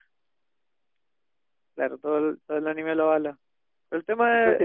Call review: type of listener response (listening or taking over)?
taking over